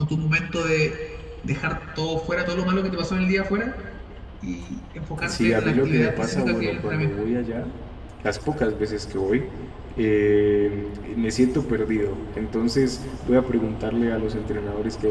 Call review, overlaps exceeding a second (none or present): present